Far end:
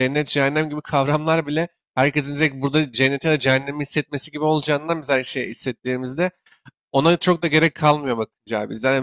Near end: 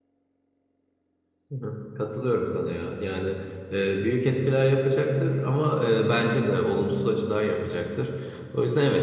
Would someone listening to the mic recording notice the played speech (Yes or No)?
No